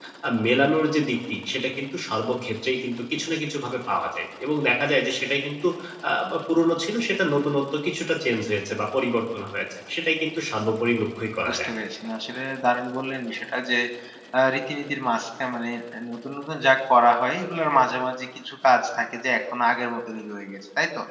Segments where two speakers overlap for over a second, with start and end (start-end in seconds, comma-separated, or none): none